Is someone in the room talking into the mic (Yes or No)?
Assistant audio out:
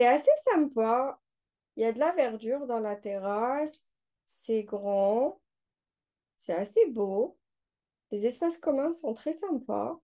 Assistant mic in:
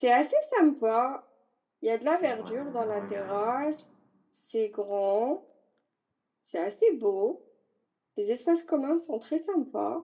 Yes